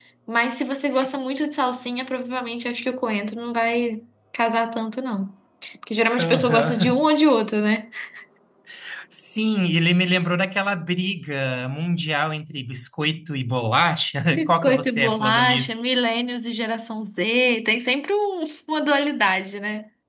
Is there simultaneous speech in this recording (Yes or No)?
Yes